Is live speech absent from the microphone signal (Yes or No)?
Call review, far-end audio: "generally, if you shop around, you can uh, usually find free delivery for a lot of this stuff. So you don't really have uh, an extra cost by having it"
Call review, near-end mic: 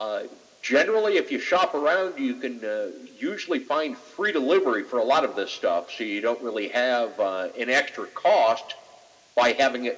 Yes